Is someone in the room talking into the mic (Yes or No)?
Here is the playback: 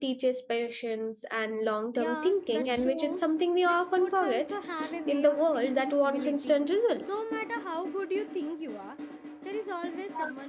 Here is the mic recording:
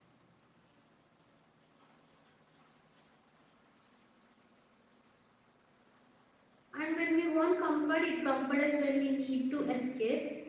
Yes